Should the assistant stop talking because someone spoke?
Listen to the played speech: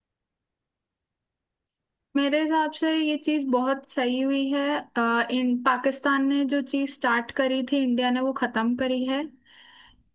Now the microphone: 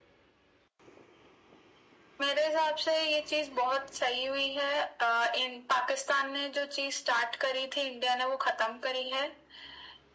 No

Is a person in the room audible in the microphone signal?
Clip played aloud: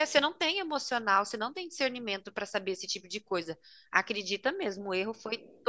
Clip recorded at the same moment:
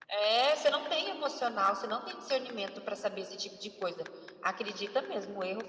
No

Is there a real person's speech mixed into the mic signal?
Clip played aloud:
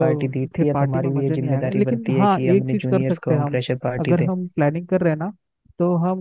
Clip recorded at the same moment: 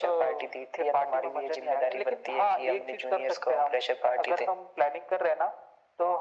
No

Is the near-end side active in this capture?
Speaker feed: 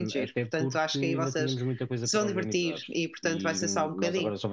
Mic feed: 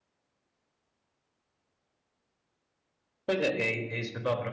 Yes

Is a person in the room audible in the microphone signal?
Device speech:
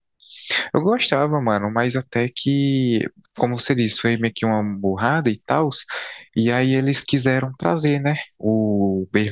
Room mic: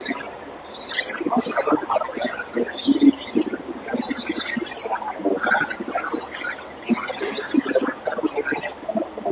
No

